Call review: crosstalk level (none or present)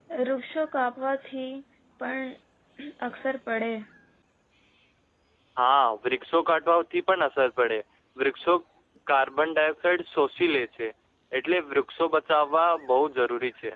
none